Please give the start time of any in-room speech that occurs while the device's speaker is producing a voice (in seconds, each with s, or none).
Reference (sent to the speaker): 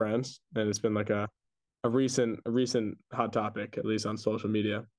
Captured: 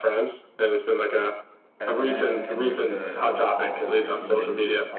1.8 s